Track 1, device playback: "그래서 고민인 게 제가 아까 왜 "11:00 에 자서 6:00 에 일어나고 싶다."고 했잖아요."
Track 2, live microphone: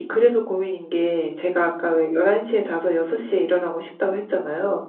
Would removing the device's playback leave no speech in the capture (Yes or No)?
Yes